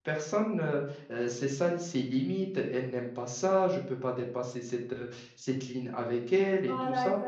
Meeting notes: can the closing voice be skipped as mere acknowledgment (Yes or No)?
No